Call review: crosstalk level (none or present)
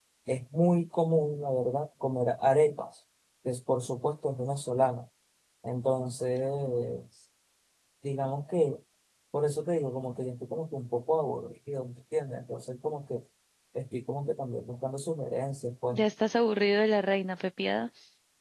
none